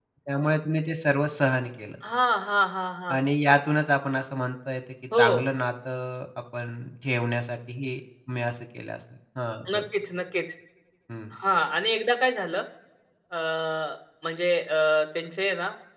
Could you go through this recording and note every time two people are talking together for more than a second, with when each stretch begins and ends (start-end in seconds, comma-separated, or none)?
none